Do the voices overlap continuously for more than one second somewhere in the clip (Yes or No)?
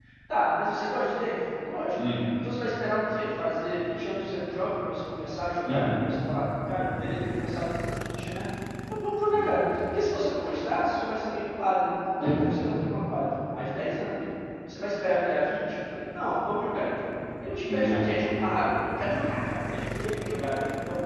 No